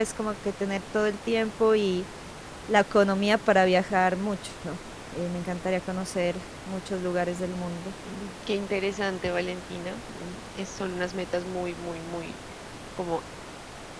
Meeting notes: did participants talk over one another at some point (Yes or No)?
No